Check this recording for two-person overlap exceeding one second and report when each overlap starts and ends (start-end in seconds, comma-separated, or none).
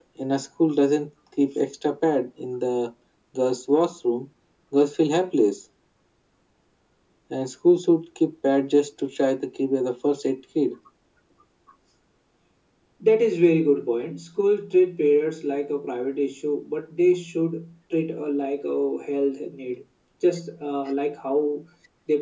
none